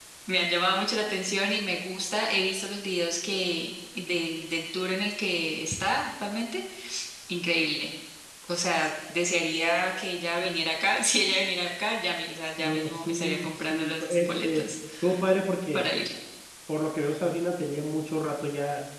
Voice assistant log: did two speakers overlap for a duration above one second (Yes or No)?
Yes